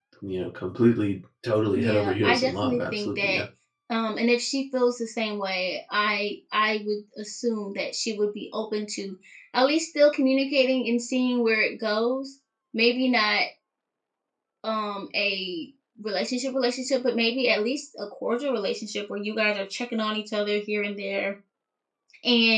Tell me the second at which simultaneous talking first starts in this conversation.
2 s

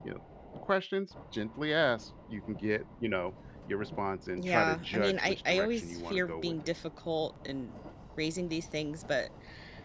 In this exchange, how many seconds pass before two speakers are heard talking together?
4 s

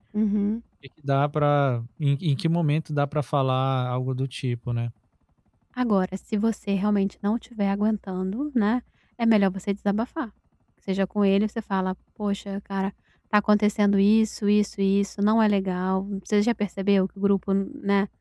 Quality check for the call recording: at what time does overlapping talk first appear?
none

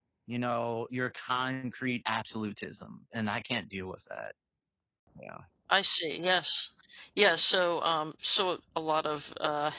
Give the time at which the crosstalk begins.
none

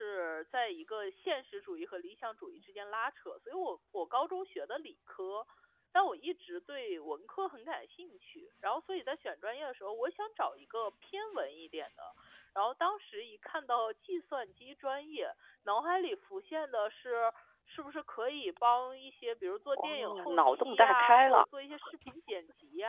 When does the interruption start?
20 s

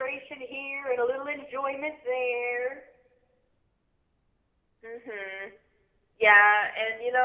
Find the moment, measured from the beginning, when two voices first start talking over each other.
none

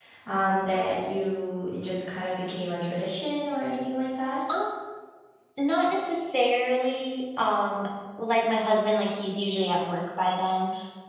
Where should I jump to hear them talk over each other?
none

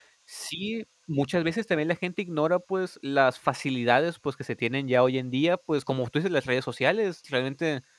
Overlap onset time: none

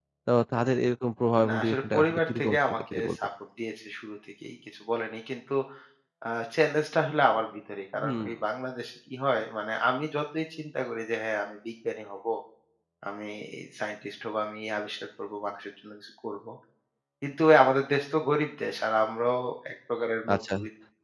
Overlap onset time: 1 s

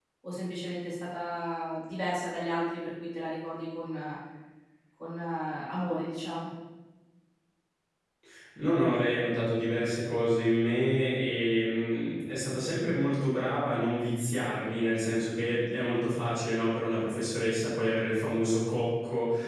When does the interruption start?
none

